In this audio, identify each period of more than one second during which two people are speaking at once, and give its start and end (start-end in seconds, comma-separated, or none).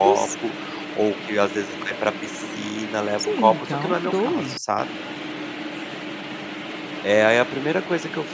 3.2-4.6